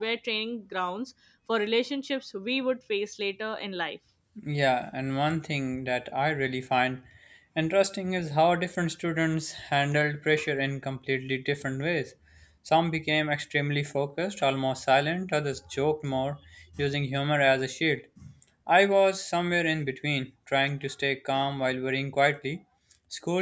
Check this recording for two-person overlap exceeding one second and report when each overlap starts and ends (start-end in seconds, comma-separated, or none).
none